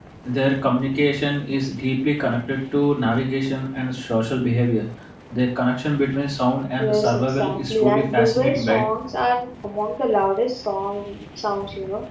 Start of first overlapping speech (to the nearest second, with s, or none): 7 s